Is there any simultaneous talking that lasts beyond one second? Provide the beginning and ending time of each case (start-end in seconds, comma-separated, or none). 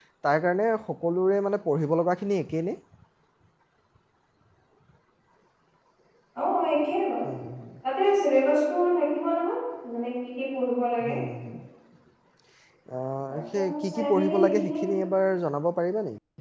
13.3-14.8